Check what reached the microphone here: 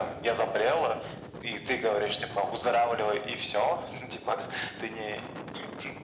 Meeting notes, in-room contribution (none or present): none